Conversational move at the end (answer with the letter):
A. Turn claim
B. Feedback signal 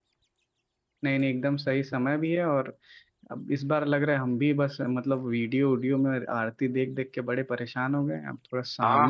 A